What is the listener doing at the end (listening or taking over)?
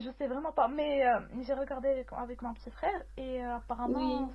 listening